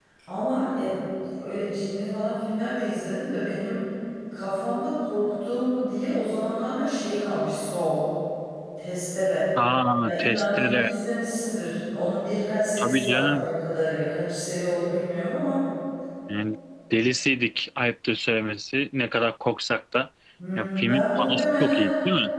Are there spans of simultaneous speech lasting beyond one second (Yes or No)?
Yes